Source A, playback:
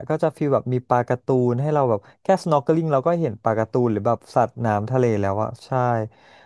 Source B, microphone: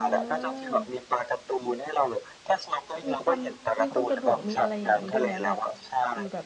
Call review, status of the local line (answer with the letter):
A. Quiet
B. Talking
B